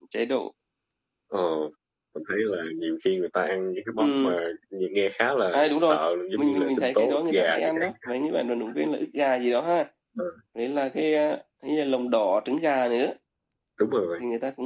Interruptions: present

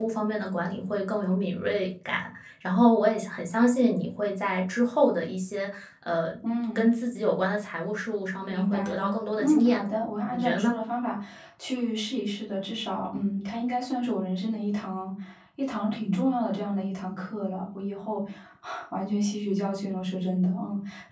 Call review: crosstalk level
present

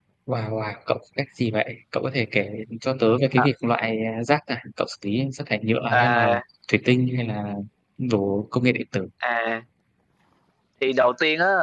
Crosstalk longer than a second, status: none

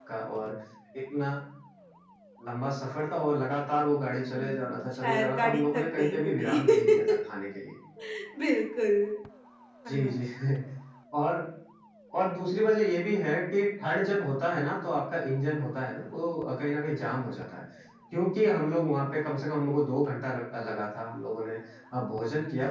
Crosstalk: present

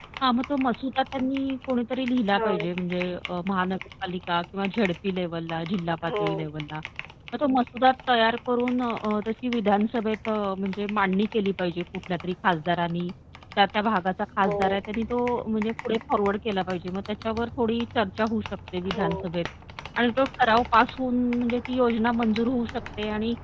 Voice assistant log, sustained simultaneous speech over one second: none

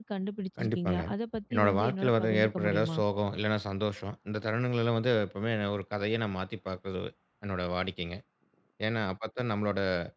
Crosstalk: present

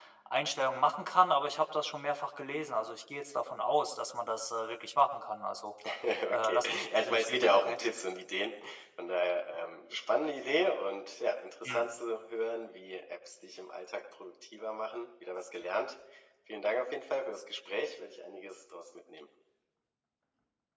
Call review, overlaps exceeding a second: present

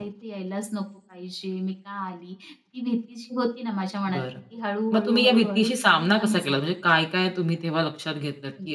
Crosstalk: present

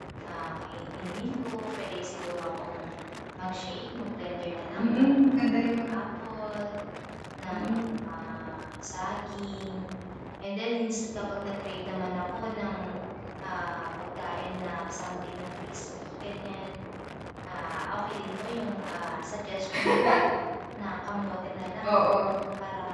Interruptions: present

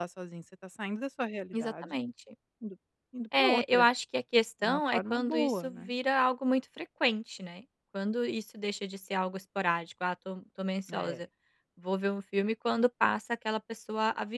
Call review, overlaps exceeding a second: present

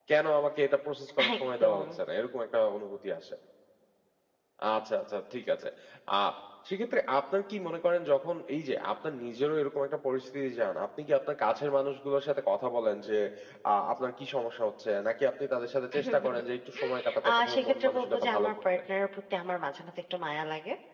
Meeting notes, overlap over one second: present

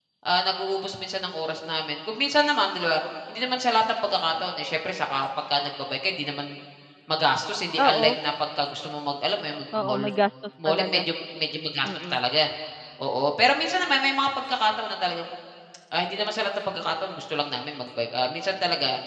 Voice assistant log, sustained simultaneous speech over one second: none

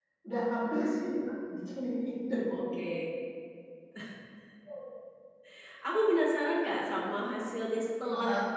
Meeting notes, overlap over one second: none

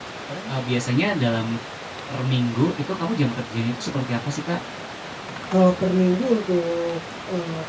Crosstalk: none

